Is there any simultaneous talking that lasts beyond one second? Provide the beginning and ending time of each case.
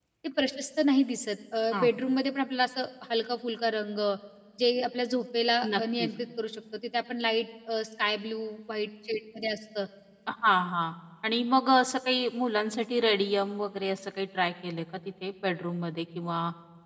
none

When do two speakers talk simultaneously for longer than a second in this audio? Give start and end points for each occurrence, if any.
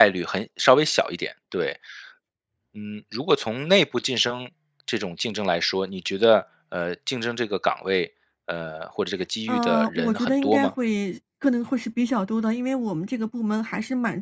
9.5-10.7

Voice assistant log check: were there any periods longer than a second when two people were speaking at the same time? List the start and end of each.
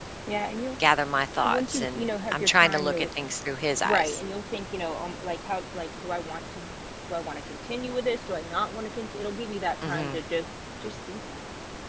1.4-3.1

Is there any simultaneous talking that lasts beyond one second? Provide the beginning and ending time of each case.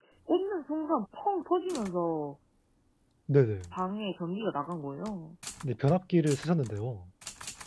none

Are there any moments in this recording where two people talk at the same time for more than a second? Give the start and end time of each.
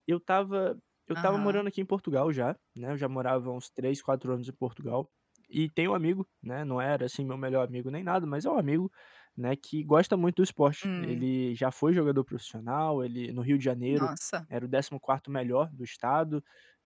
none

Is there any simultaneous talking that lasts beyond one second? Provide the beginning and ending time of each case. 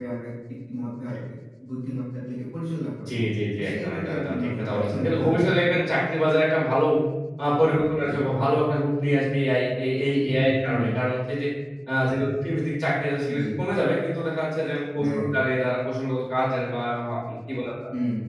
3.6-5.5

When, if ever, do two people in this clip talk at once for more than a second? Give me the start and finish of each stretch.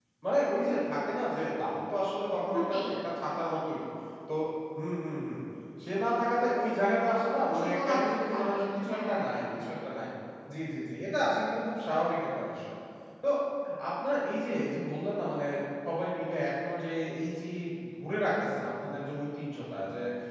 7.6-9.2

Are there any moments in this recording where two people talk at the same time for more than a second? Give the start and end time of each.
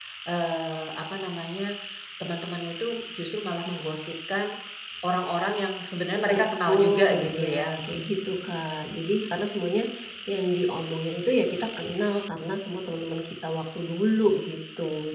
6.3-7.7

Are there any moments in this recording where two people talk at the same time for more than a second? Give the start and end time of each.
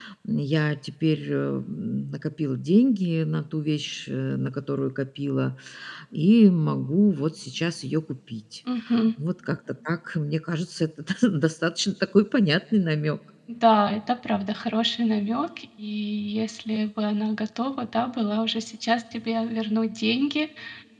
none

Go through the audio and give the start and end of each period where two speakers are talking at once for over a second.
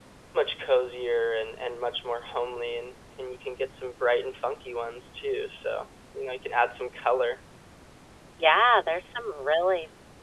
none

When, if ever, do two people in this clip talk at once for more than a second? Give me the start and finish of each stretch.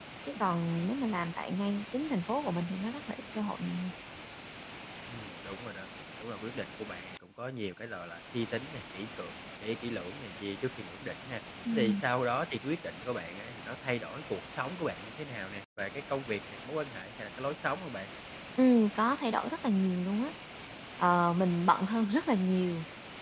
none

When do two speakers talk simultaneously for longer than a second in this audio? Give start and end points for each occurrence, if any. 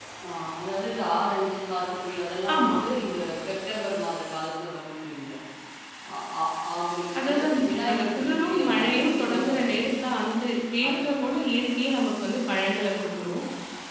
7.2-9.7

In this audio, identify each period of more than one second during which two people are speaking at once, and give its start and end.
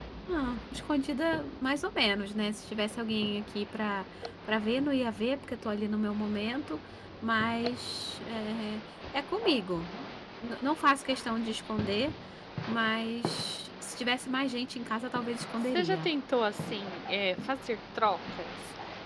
none

